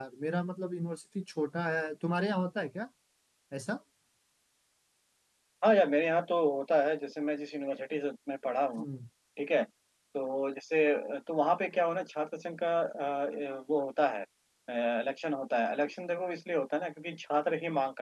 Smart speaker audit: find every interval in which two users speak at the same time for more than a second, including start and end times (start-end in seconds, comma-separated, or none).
none